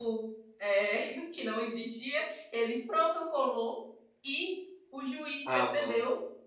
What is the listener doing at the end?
listening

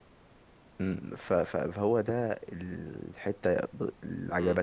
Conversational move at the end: taking over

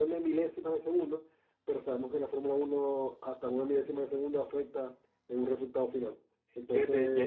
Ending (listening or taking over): taking over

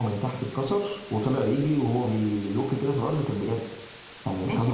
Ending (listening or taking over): taking over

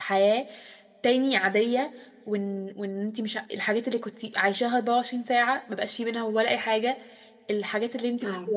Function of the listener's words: listening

